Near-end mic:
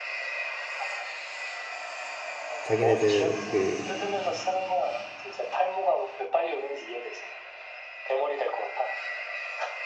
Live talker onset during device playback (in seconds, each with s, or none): 2.6 s